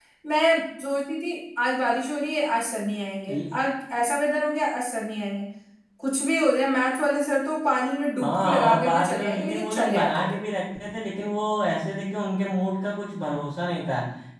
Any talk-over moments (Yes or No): Yes